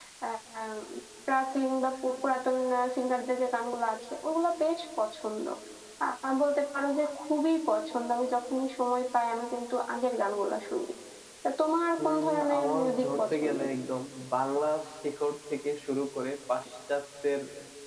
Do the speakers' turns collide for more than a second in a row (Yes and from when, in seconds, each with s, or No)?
Yes, from 12.0 s